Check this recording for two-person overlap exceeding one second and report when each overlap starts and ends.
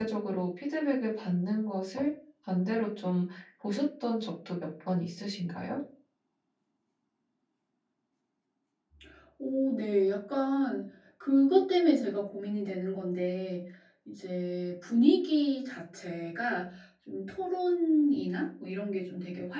none

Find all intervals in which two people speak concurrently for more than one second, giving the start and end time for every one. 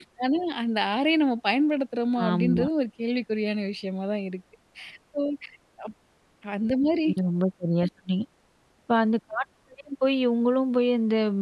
none

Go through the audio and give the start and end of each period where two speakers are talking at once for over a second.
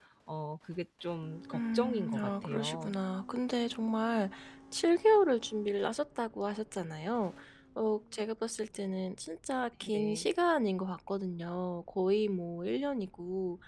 1.5-2.9

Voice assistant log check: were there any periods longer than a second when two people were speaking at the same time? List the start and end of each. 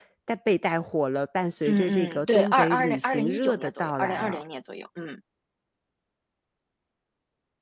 1.7-4.4

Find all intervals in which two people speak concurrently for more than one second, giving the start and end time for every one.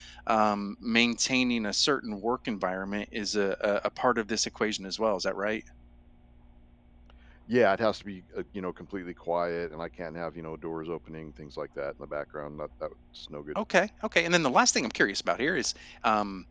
none

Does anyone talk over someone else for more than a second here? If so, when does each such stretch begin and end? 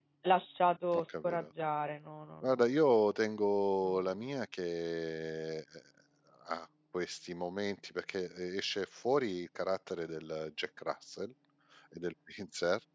none

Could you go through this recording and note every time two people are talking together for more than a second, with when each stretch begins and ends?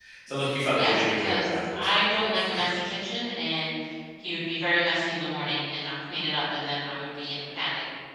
0.7-2.8

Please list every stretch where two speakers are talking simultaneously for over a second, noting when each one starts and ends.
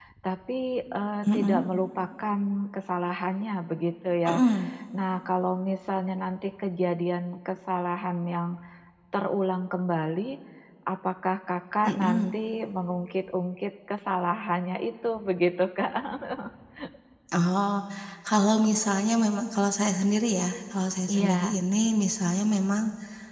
none

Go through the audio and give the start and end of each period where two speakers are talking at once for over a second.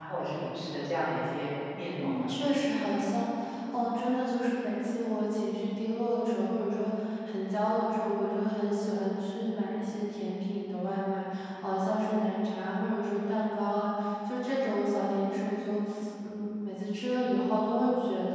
none

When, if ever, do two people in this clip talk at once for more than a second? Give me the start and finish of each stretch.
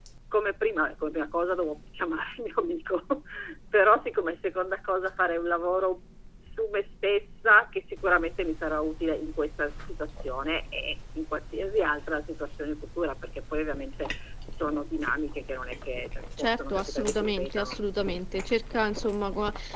16.4-17.8

